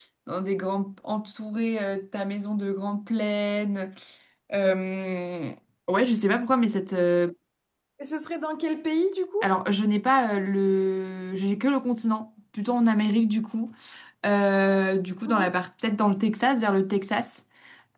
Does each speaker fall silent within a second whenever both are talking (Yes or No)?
Yes